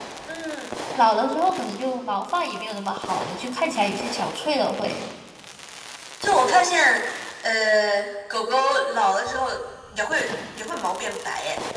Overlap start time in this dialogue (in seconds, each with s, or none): none